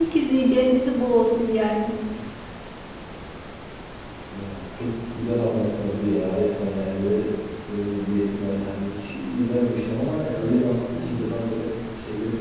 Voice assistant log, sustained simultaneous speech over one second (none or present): none